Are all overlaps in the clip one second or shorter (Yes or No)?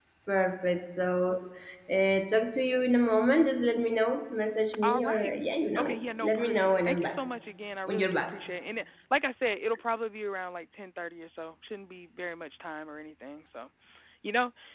No